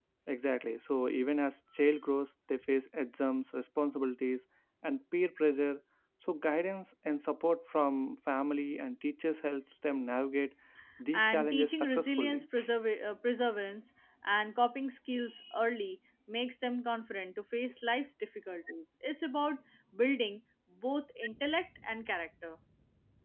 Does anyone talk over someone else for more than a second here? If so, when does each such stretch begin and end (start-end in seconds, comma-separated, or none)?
11.1-12.4